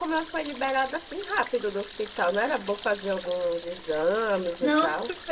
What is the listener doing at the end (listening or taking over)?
taking over